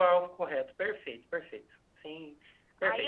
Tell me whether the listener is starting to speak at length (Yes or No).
Yes